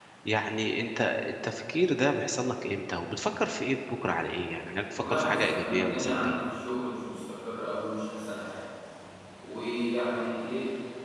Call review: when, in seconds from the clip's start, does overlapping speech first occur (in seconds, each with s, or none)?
5.0 s